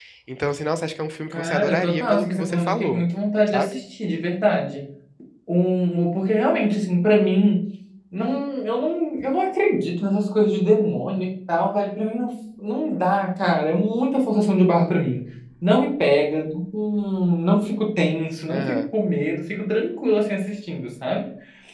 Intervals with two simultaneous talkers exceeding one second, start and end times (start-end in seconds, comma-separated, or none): 1.3-3.0